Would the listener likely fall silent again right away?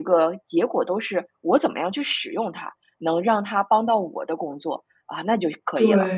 No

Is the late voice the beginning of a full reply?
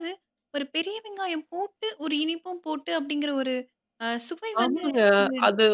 Yes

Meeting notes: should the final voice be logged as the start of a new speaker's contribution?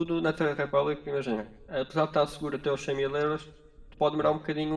No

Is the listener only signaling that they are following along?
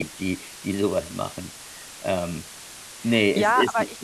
No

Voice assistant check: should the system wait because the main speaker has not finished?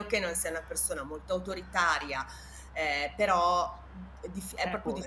No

